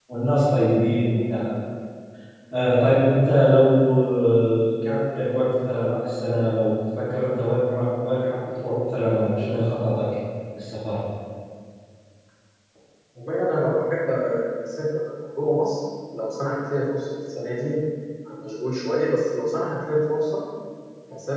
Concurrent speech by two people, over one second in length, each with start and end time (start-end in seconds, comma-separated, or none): none